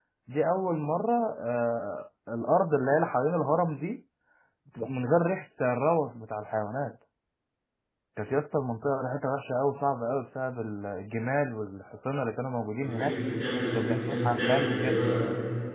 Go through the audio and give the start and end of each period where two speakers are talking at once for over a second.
13.7-15.0

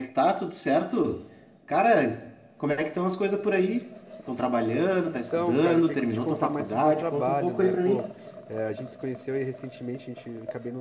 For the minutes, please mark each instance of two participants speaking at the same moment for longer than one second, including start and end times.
5.0-8.0

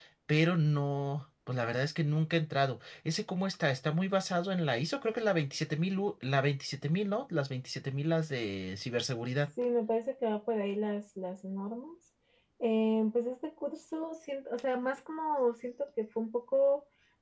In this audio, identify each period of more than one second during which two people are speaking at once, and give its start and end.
none

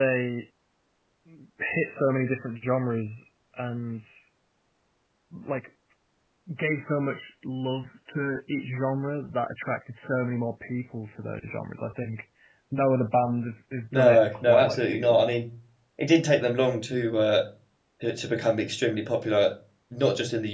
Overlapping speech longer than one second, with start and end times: 13.9-15.3

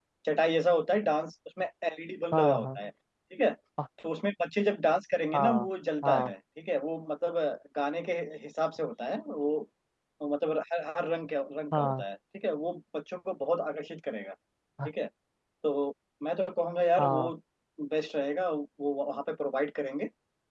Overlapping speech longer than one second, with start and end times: none

